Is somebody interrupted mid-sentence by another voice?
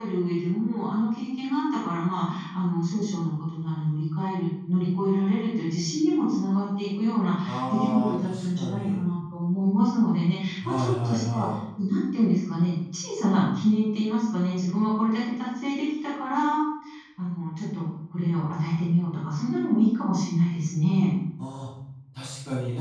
Yes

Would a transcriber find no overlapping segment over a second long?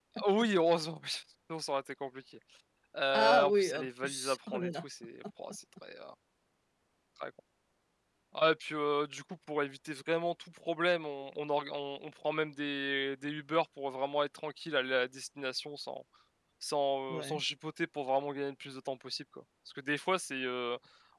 No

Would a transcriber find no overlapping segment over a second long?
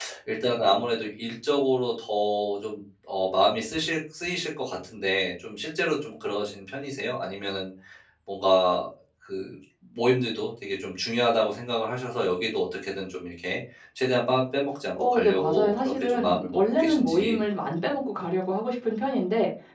No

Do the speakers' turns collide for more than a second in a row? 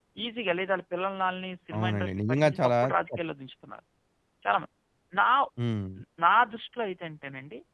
Yes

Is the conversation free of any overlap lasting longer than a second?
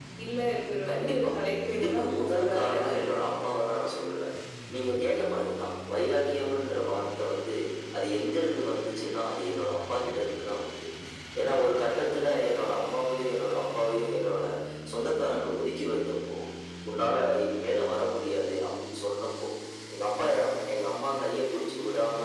No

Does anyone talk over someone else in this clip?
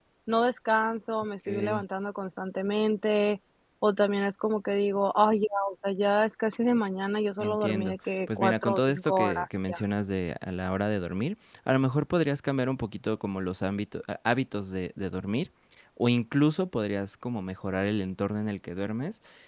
Yes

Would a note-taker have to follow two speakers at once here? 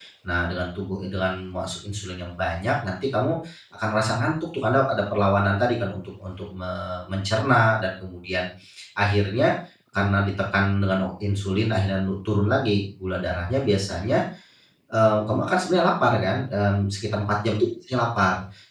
No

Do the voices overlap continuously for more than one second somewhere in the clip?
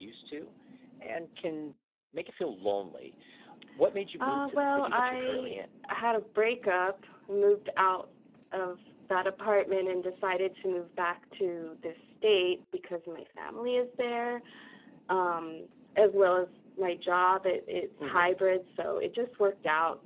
Yes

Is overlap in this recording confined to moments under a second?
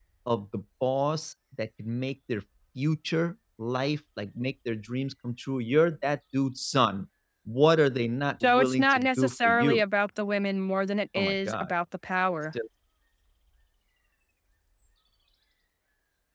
No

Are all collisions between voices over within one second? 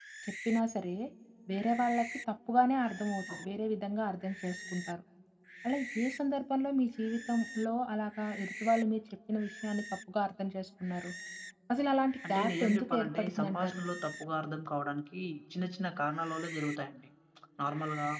No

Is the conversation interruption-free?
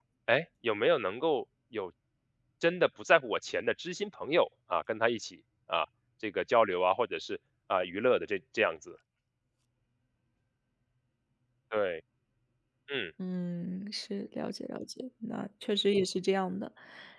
Yes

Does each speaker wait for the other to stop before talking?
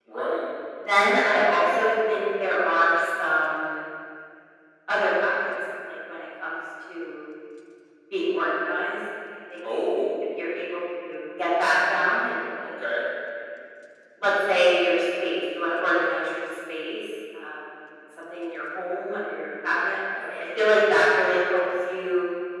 Yes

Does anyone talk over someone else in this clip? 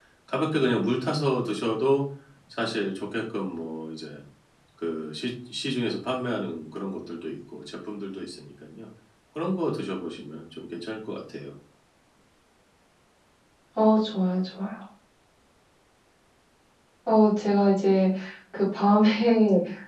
No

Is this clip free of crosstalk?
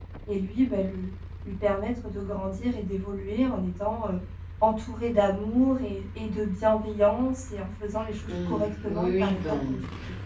No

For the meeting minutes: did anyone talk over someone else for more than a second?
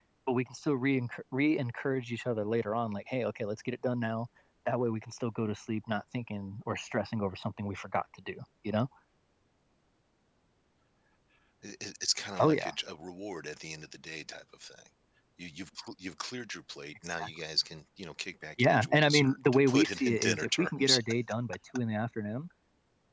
Yes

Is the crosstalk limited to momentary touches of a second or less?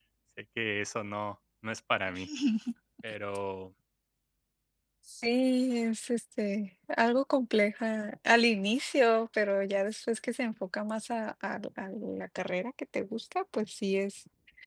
Yes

